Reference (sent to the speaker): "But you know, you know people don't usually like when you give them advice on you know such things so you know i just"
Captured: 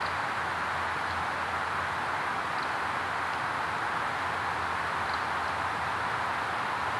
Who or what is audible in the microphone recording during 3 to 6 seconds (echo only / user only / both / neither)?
neither